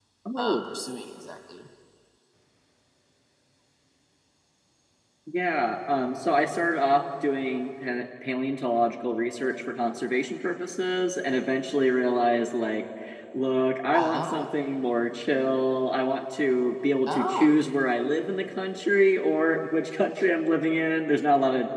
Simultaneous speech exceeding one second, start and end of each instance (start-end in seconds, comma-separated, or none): none